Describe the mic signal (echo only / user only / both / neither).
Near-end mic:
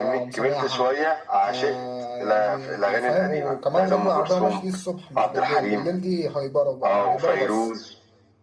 both